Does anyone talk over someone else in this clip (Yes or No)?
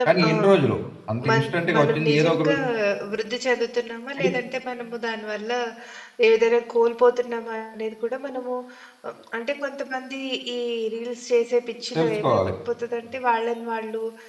Yes